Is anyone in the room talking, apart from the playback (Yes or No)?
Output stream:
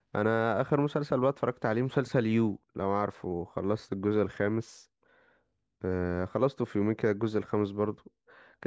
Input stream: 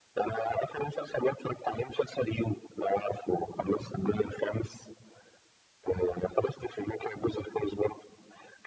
No